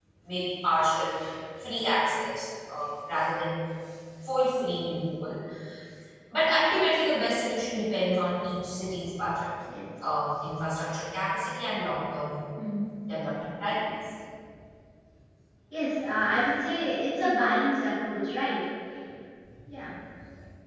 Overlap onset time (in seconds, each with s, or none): none